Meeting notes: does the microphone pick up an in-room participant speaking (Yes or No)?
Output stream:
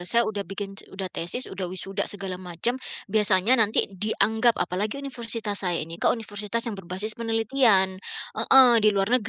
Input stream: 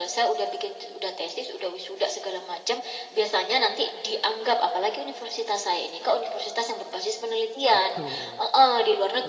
Yes